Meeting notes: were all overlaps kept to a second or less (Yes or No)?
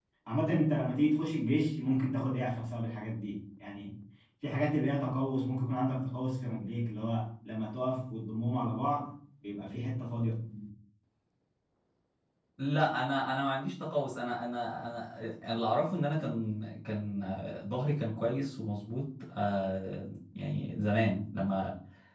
Yes